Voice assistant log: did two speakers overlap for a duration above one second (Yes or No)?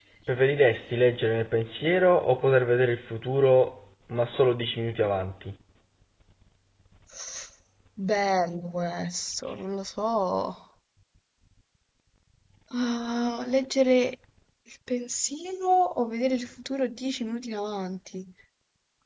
No